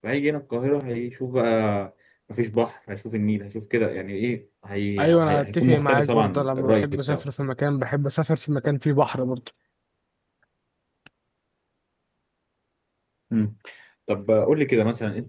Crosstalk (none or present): present